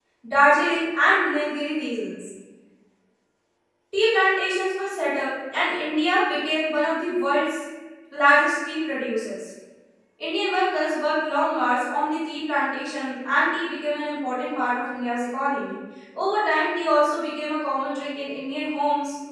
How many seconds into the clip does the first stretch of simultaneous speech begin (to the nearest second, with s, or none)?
none